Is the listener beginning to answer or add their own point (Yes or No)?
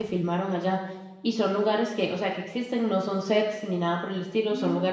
No